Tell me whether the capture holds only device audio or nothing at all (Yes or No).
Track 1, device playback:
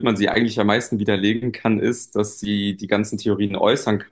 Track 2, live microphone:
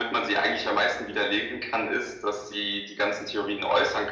Yes